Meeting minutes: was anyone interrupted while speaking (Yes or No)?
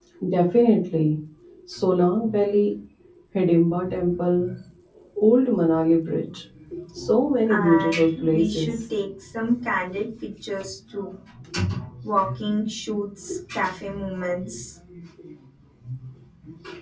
Yes